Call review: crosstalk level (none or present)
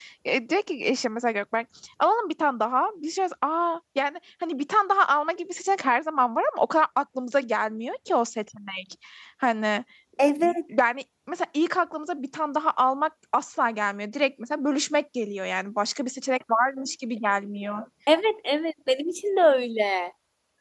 none